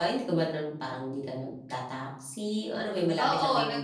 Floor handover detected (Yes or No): Yes